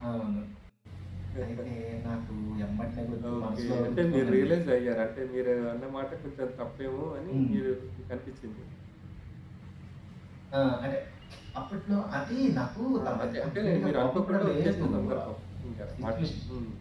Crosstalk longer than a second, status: present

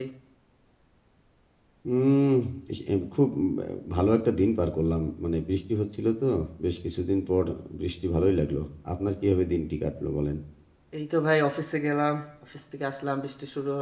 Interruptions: none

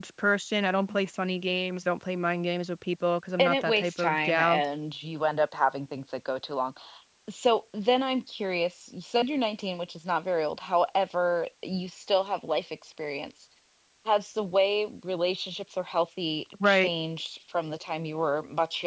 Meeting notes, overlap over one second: present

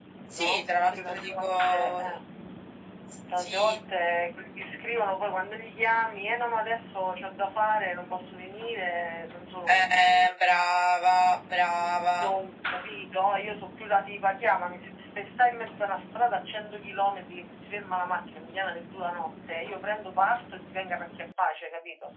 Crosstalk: present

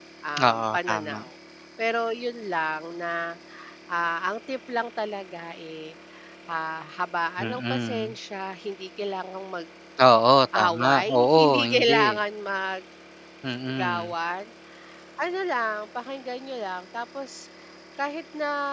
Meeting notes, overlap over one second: present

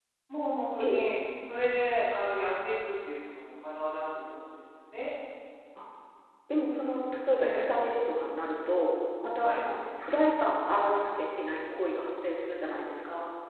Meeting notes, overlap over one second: none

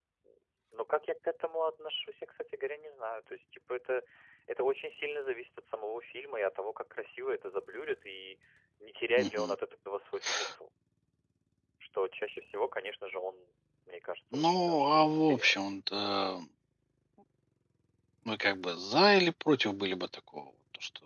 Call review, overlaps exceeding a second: present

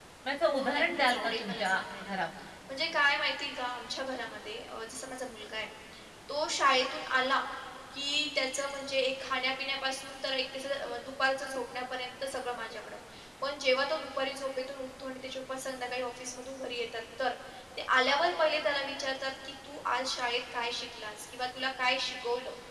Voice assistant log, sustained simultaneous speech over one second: present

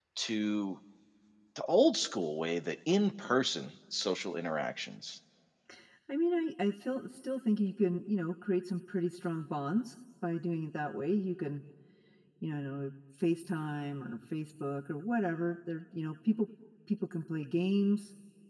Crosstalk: none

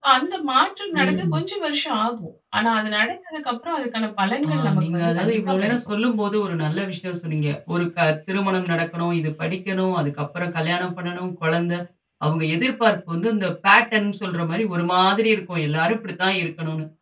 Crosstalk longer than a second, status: present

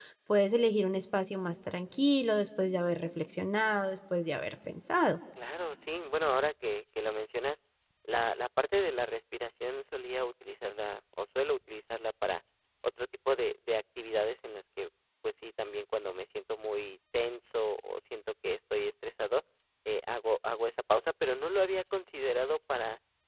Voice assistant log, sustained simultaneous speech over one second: none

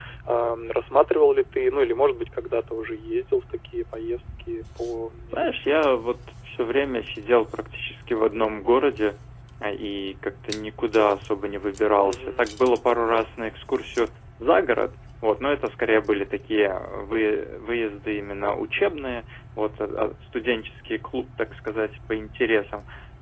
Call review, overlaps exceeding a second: none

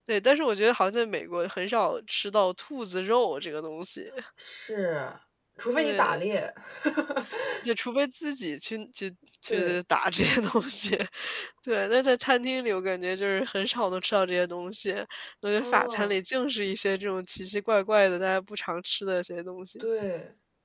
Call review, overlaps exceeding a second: none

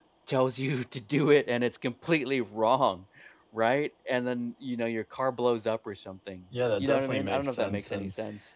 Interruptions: present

